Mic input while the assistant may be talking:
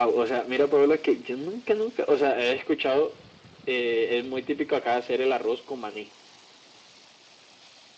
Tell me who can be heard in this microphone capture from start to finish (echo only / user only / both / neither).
echo only